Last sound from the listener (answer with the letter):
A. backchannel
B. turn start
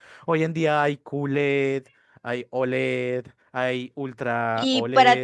B